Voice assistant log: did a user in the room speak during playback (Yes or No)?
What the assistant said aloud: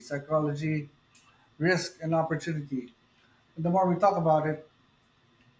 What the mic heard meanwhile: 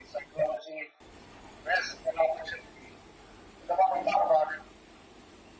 No